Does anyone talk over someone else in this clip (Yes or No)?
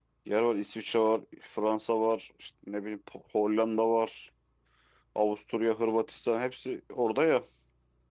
No